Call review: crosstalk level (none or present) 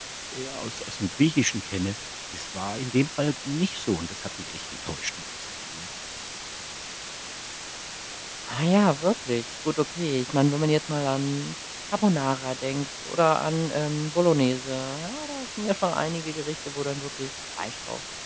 none